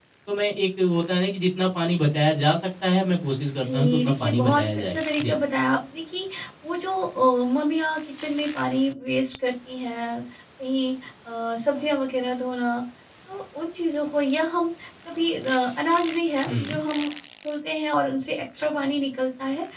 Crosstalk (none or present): present